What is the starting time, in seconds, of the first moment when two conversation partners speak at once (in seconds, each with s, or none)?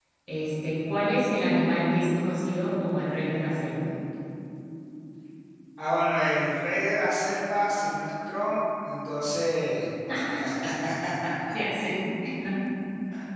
none